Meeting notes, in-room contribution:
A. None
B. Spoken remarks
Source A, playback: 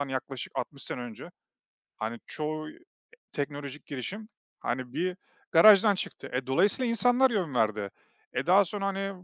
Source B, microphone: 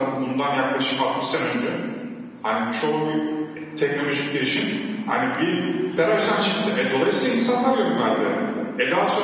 A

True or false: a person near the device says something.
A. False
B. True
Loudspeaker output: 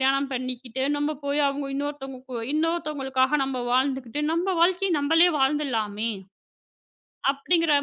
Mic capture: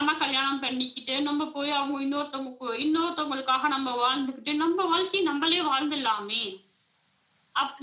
A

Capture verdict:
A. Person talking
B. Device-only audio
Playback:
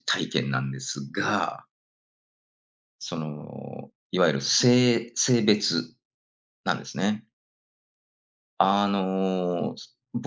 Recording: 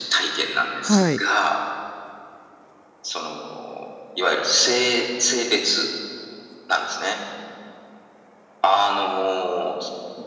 A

